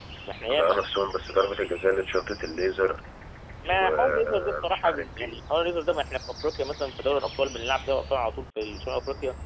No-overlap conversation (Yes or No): No